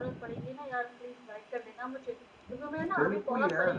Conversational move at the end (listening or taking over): listening